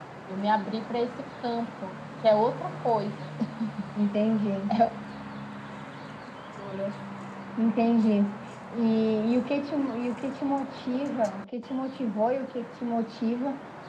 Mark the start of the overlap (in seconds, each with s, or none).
none